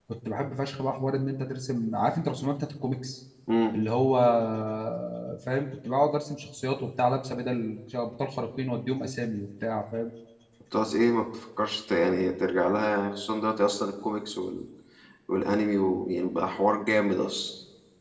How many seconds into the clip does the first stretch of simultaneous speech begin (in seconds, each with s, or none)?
none